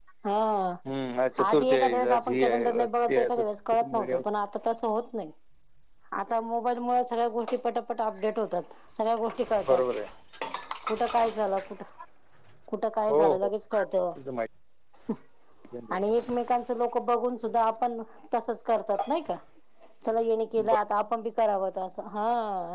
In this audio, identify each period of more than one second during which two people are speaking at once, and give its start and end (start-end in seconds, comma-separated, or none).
1.4-3.4